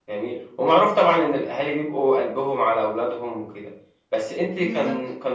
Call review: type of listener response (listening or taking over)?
listening